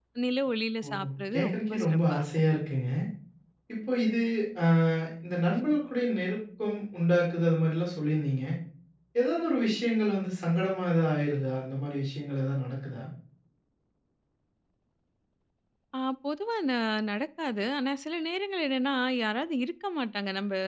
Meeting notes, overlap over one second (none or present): present